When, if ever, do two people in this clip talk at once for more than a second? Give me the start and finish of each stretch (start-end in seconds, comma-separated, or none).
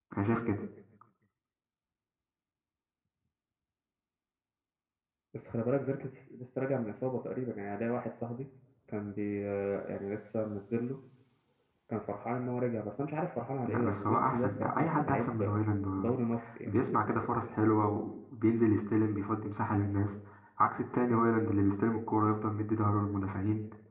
13.7-15.5